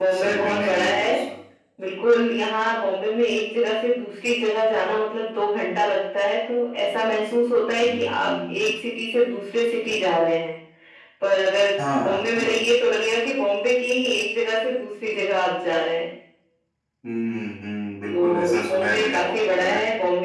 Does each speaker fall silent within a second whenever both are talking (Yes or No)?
No